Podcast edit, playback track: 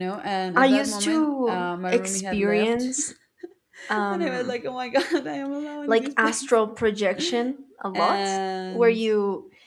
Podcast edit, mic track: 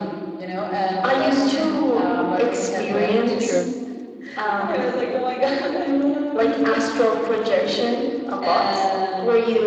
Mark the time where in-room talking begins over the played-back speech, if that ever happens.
2.7 s

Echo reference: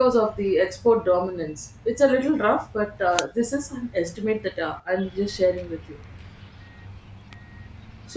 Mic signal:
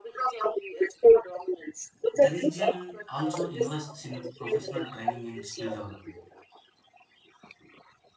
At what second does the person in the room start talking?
2.1 s

